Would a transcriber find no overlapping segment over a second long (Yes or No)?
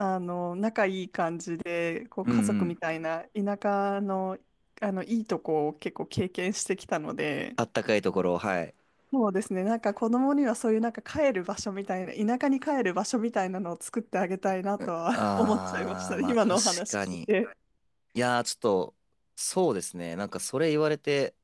No